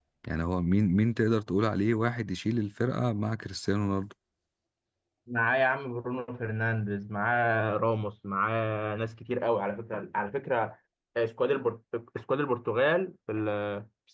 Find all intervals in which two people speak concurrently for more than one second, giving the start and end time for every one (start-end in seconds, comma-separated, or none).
none